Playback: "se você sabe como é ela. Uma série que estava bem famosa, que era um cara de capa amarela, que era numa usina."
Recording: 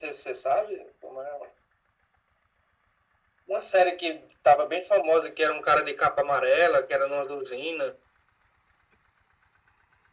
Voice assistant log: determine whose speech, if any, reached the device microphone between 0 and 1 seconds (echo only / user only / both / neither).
echo only